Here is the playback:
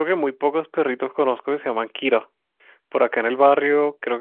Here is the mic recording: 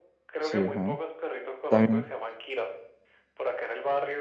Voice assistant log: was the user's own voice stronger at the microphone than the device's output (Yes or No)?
Yes